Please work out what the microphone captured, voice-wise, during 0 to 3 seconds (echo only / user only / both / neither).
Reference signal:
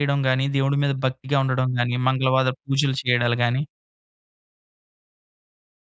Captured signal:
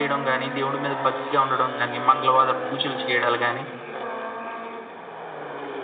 echo only